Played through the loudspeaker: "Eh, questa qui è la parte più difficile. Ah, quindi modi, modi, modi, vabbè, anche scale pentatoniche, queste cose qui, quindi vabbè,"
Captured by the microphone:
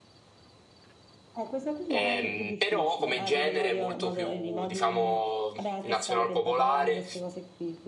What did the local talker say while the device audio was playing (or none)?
Ehm, però come genere è molto più, diciamo, nazional popolare.